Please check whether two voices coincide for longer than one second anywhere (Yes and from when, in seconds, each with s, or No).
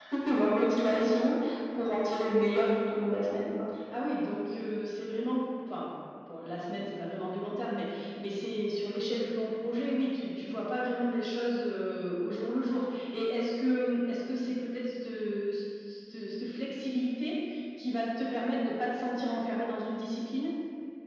No